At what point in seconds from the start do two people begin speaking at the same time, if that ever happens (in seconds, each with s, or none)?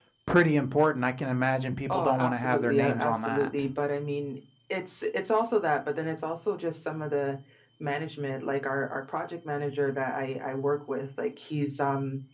1.9 s